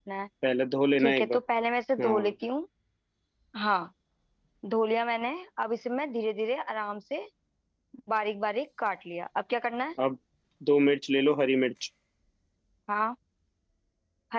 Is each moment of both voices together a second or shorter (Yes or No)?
Yes